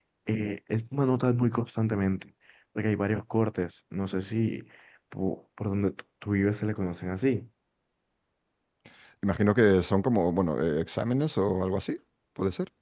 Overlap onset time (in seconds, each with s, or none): none